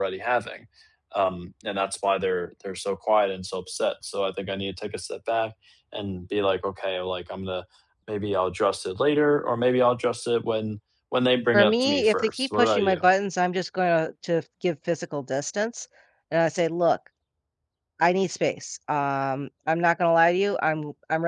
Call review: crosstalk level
present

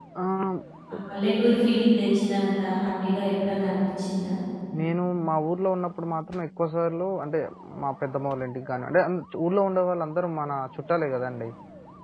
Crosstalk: none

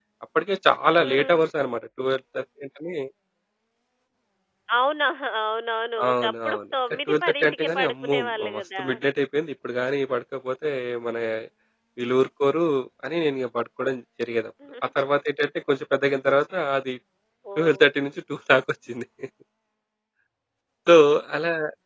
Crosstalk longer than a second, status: present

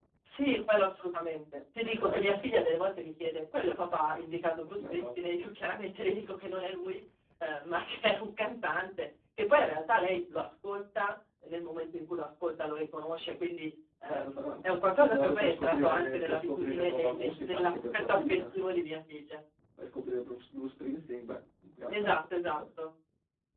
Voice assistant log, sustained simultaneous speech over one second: present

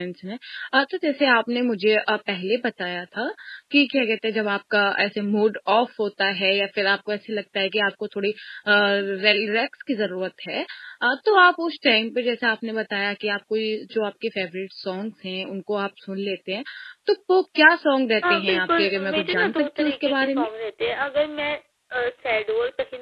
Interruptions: present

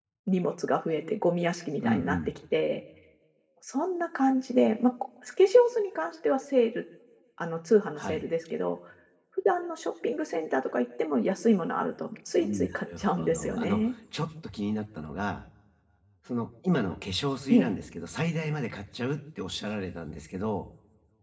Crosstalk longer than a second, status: present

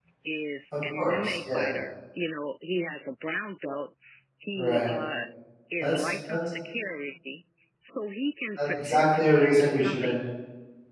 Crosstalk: present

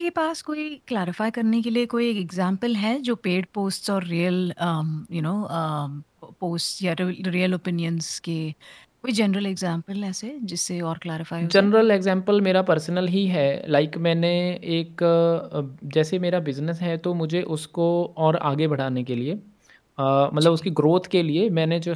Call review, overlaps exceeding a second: none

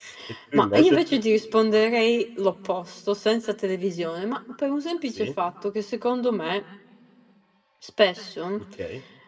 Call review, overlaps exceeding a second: none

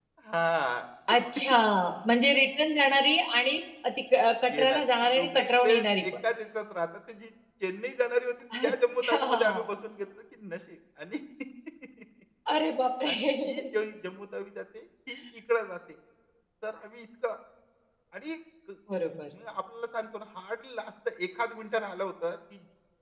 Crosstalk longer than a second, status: present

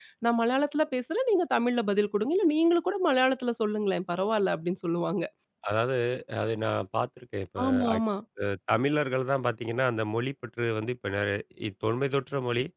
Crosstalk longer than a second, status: none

